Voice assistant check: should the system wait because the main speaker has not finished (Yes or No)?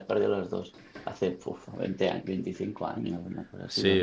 No